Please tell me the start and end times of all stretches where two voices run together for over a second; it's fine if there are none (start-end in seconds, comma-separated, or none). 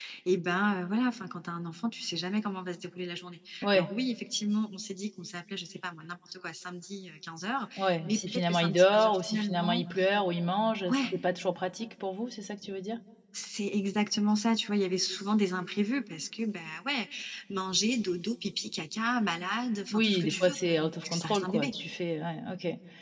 8.1-9.8, 19.9-21.7